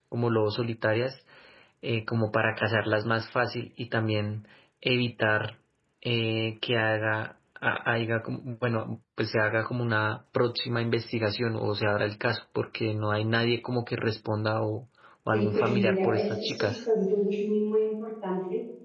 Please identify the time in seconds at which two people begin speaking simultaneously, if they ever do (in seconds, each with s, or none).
15.3 s